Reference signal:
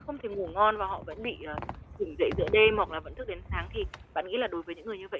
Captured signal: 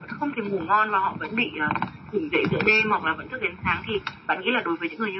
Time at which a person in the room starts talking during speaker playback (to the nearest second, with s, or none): none